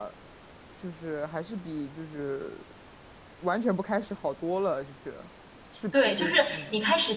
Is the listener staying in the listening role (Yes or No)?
No